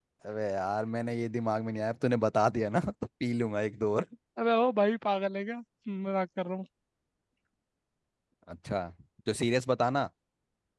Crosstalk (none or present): none